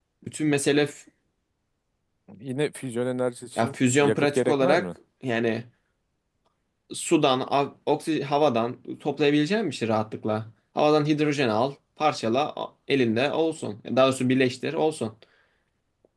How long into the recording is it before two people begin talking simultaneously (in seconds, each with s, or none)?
3.6 s